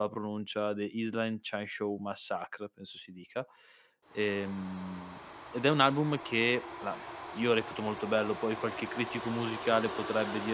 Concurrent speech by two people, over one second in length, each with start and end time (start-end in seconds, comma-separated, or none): none